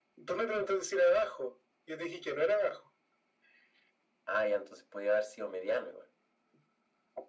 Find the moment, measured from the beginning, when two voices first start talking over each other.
none

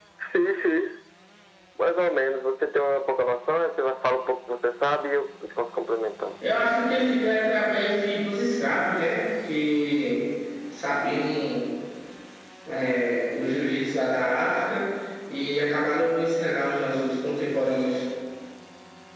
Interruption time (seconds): none

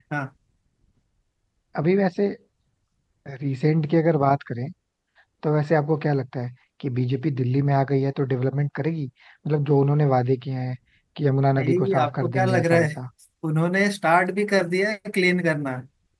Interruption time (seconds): 11.6 s

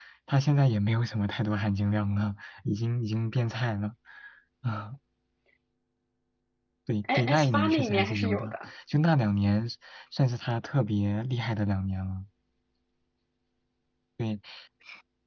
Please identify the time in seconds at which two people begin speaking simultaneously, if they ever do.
7.0 s

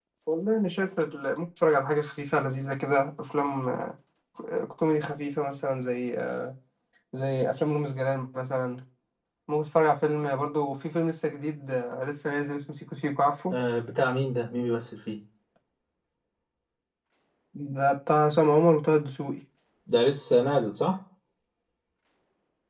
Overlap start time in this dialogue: none

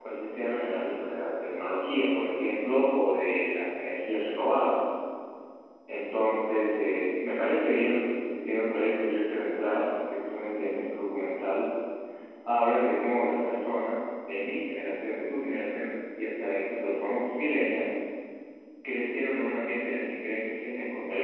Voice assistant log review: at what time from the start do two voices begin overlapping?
none

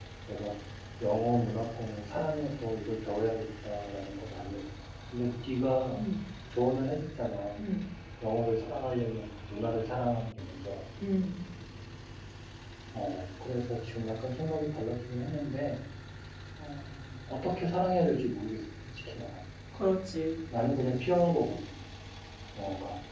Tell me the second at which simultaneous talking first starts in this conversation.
none

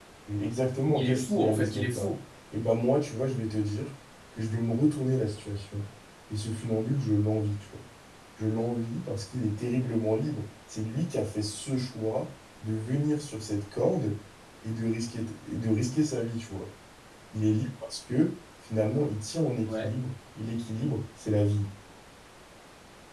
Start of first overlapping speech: 0.8 s

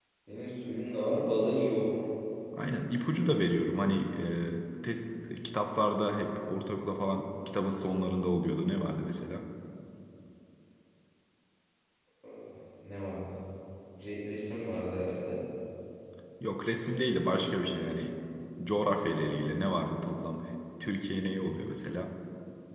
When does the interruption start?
none

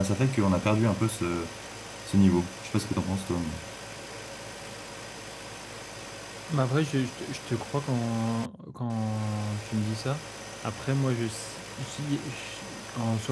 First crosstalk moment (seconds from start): none

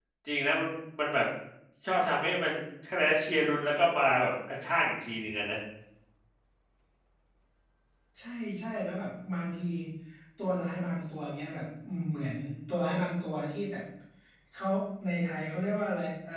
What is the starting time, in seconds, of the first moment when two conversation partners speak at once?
none

